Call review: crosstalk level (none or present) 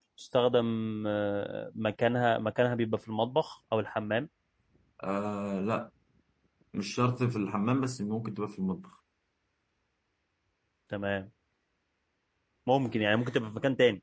none